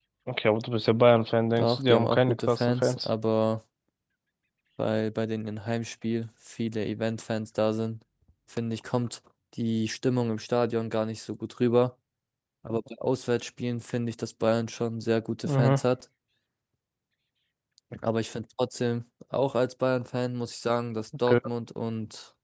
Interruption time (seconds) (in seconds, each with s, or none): 1.6 s